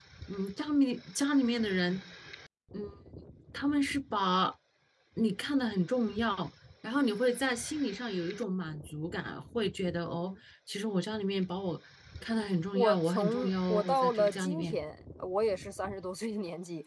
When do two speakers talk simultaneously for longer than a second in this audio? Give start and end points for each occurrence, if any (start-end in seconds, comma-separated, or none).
12.7-14.8